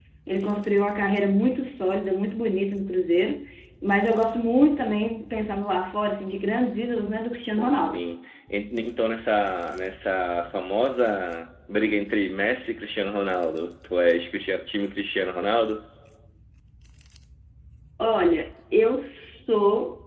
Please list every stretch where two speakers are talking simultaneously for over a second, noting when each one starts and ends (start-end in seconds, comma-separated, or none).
none